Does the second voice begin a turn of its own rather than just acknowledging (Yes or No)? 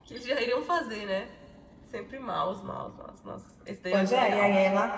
Yes